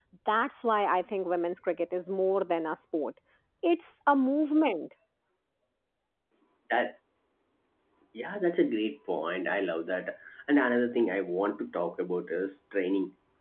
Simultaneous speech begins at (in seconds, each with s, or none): none